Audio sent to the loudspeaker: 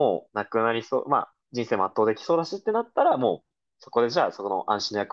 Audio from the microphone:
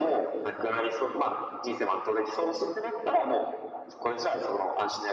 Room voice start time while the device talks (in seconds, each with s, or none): none